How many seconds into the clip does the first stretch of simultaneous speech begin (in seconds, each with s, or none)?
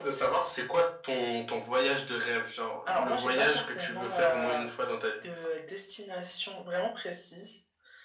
2.9 s